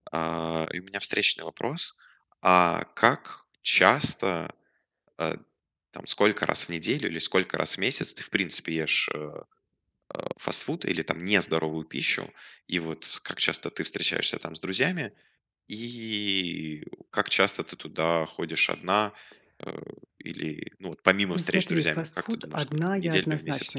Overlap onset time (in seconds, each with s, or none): 21.3 s